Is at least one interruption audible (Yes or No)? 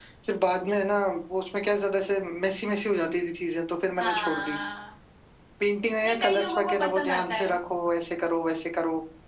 Yes